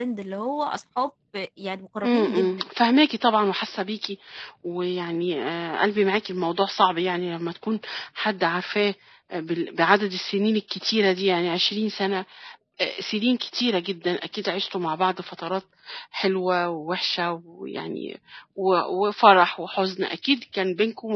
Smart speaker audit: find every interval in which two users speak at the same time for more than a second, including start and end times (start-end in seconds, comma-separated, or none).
none